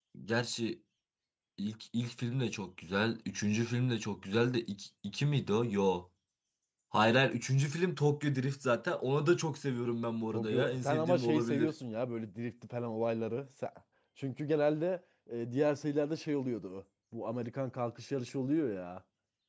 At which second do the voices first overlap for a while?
10.3 s

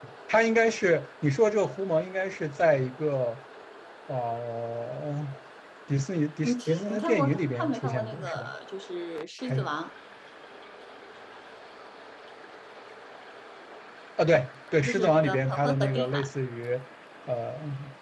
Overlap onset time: 6.4 s

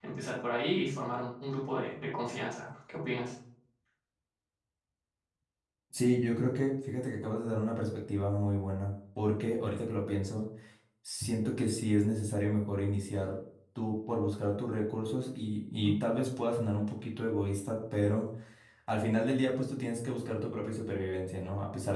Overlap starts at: none

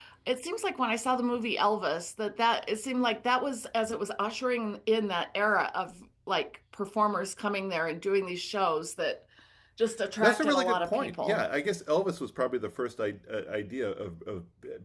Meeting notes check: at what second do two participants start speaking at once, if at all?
10.2 s

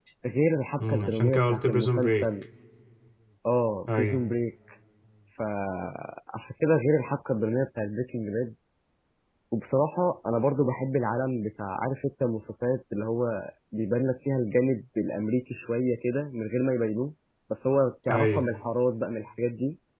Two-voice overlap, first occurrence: 0.8 s

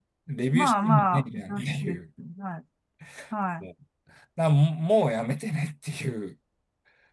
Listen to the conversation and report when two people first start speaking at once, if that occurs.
0.6 s

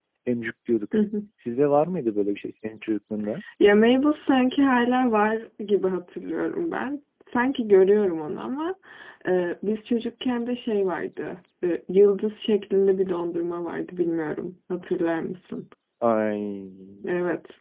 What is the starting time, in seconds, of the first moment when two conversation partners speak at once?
none

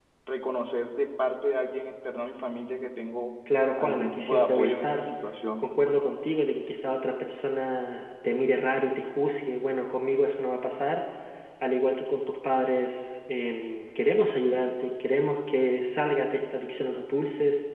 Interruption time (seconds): 3.8 s

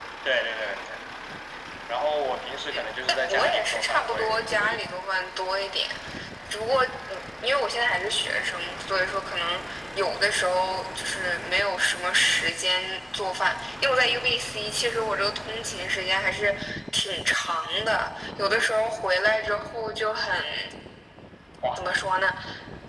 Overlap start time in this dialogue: 3.1 s

